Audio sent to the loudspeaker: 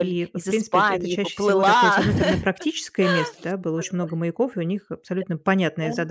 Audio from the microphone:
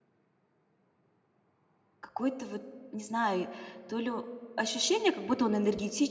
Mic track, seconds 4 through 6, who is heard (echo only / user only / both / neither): user only